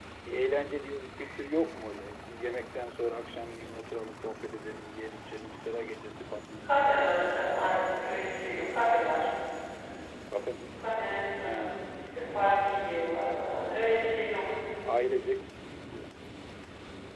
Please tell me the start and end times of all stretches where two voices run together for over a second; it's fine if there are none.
none

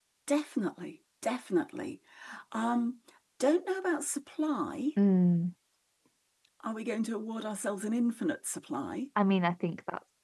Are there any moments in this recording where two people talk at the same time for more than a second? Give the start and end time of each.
none

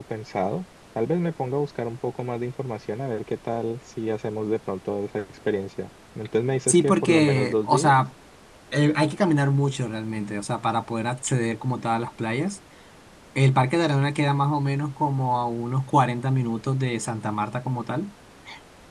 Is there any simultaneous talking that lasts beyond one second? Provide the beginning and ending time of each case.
6.7-7.9

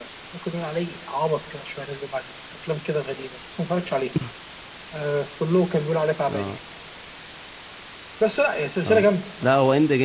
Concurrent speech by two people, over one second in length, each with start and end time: none

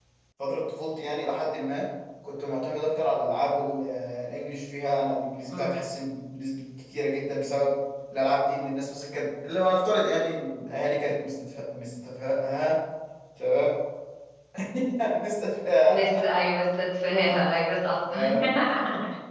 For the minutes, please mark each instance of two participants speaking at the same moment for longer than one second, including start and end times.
none

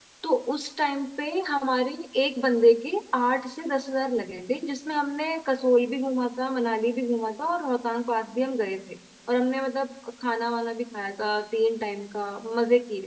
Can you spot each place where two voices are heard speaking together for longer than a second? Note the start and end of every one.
none

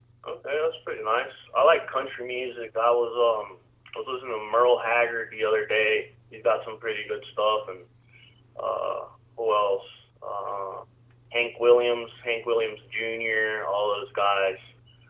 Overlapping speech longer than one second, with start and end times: none

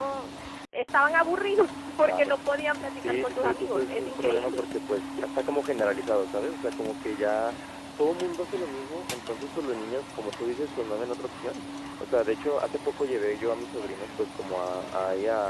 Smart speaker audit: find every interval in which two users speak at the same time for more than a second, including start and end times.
3.0-4.7

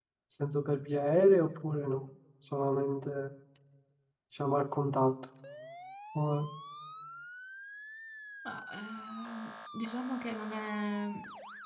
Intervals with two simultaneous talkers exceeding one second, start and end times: none

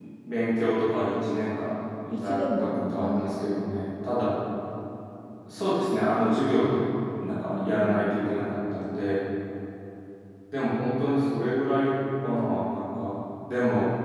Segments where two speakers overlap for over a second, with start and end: 2.1-3.4

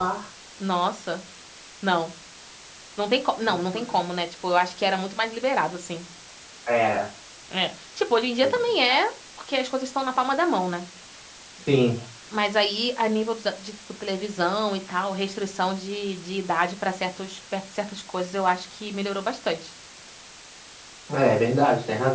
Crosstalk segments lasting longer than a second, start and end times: none

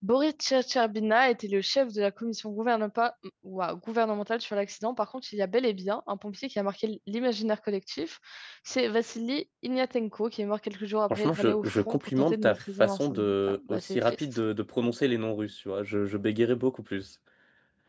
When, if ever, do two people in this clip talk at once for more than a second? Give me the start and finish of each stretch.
11.1-14.2

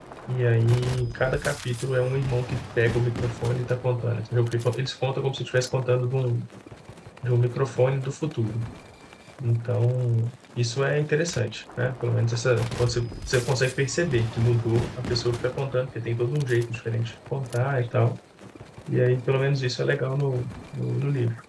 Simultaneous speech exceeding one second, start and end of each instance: none

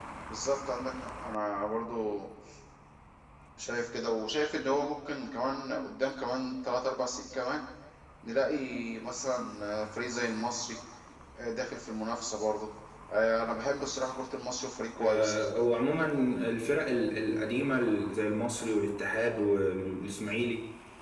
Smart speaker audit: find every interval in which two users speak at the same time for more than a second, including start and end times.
none

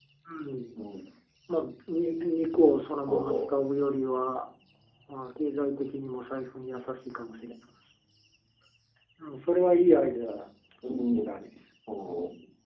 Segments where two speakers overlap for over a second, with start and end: none

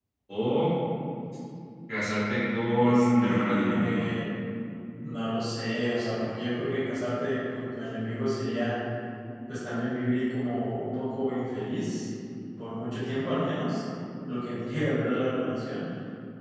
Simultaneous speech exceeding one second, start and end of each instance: 2.8-4.0

